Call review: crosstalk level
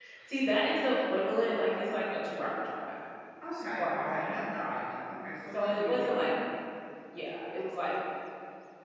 present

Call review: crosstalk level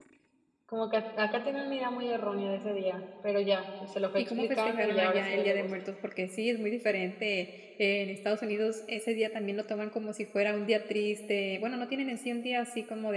present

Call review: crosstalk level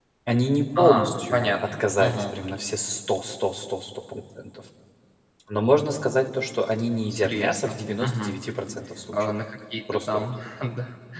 present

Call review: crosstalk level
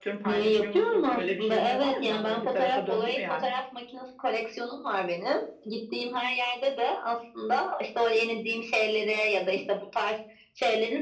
present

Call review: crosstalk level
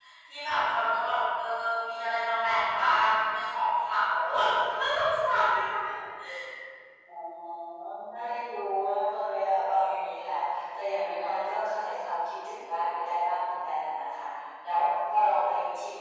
none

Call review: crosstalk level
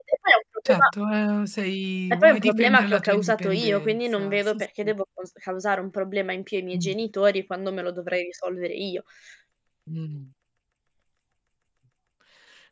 present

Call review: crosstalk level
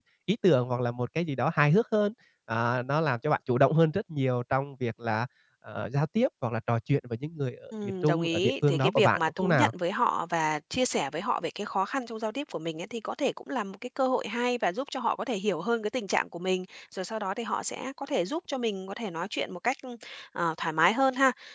present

